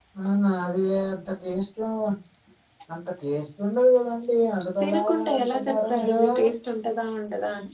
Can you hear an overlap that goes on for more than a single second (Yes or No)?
Yes